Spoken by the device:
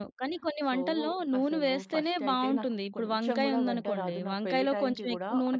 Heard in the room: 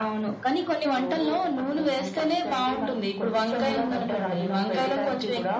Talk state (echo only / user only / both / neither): echo only